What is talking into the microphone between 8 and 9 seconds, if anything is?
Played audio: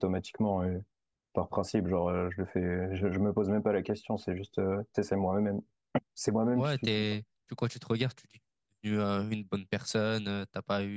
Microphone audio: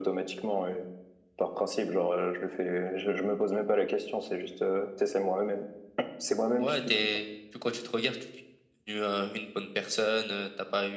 echo only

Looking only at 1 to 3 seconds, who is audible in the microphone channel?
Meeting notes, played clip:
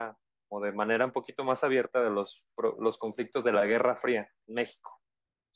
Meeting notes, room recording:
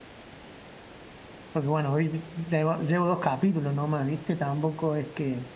user only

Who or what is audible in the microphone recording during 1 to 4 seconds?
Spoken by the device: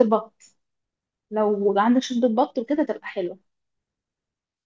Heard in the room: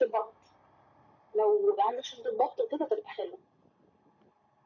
echo only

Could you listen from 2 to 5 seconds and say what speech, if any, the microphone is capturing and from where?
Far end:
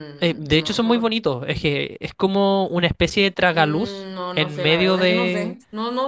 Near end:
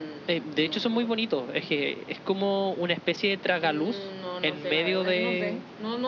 echo only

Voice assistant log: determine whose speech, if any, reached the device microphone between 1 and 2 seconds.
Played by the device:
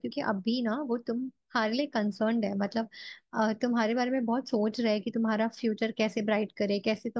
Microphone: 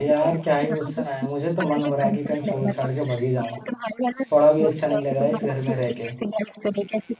both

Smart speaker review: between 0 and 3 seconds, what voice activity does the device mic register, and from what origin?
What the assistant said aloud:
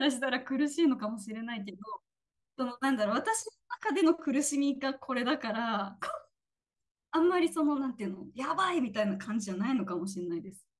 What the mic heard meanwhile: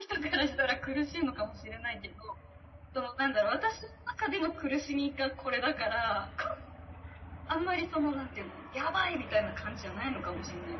echo only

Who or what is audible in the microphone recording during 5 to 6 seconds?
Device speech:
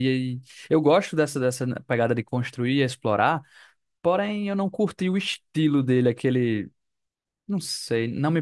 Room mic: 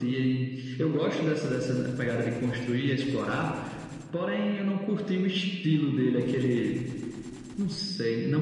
echo only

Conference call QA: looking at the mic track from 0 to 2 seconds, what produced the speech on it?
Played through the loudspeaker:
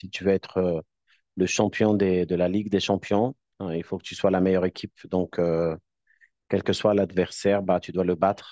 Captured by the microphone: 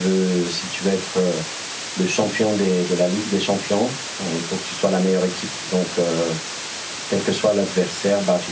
echo only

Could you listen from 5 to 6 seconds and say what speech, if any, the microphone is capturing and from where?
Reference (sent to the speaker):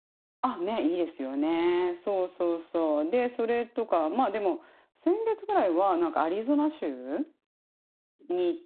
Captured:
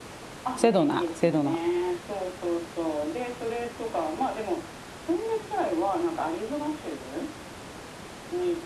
echo only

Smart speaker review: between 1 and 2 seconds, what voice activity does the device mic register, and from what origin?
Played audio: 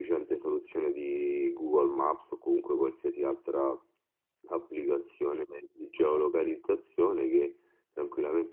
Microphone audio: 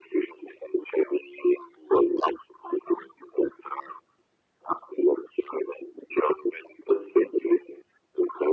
echo only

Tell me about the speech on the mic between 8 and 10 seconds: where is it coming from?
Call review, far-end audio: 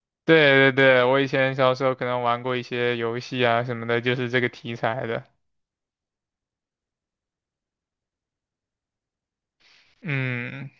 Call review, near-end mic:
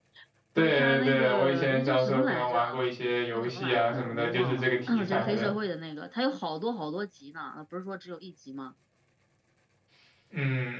user only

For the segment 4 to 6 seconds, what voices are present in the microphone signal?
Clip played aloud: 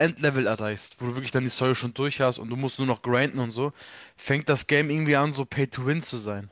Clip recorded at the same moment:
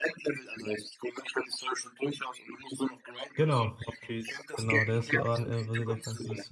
both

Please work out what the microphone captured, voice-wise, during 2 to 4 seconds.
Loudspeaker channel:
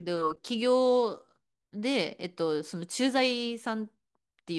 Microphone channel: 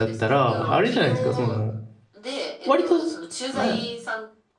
both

